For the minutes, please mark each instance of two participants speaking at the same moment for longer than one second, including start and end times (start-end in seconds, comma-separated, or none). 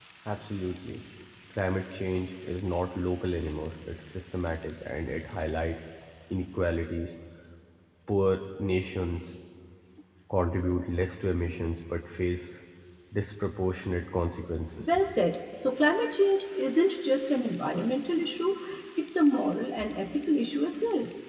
none